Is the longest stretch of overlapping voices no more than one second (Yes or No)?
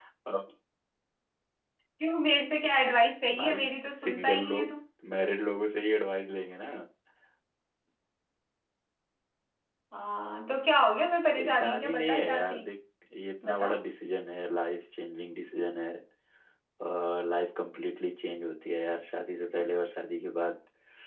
No